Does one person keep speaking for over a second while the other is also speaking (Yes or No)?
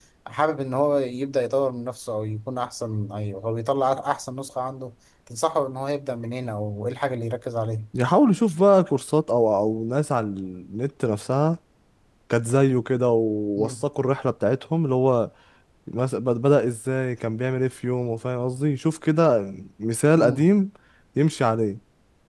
No